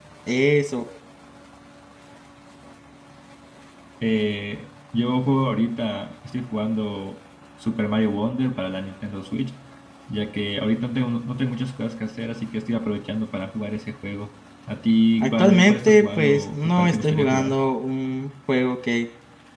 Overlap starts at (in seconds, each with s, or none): 15.2 s